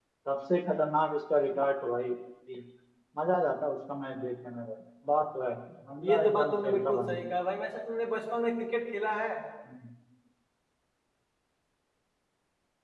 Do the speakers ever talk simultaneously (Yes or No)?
Yes